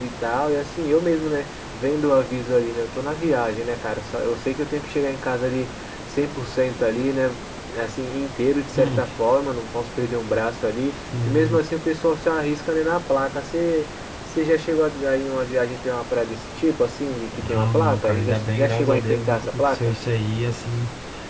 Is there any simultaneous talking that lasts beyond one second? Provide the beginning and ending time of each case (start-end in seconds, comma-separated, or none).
17.3-20.0